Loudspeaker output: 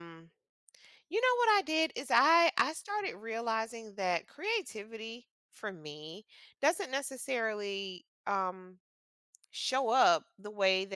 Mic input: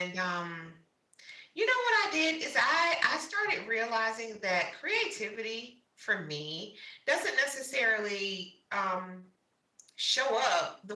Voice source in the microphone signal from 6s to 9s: echo only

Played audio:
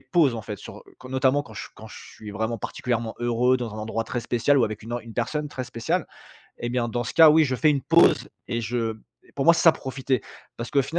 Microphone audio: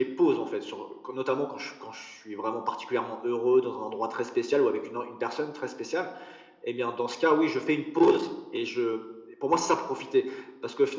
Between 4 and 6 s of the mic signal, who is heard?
echo only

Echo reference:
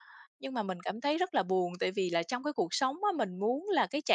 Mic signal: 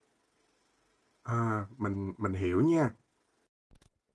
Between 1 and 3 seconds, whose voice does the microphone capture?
user only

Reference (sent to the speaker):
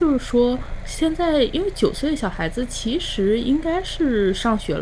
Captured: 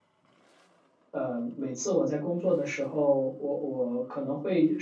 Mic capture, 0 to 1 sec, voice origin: neither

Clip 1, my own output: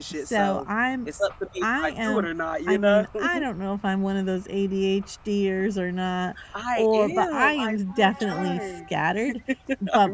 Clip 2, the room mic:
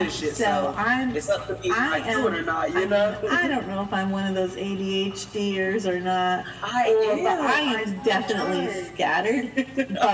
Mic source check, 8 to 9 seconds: echo only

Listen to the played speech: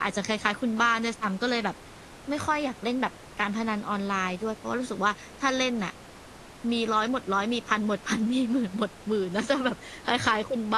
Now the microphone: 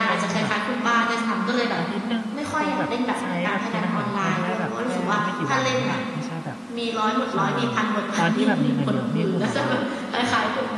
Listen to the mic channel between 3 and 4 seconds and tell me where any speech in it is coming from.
both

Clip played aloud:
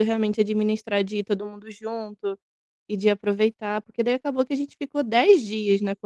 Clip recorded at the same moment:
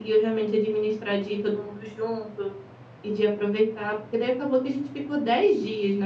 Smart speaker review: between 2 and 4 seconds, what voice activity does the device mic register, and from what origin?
echo only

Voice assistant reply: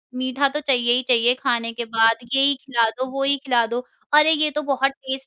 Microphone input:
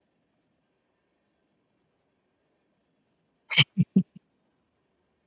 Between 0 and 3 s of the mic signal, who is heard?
neither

